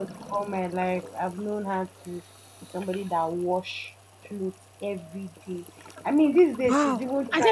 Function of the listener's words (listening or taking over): taking over